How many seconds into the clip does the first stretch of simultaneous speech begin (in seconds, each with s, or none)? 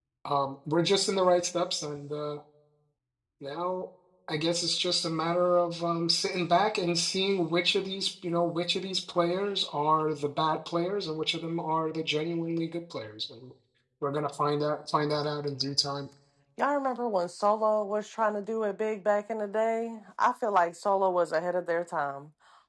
none